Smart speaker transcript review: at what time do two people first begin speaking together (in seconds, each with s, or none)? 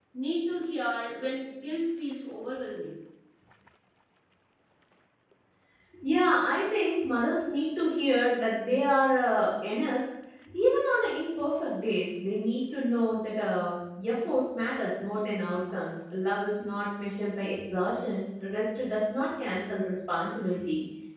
none